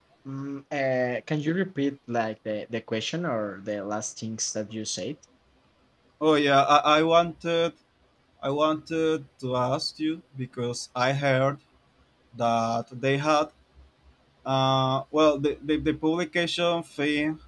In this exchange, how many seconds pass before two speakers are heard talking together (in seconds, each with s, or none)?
none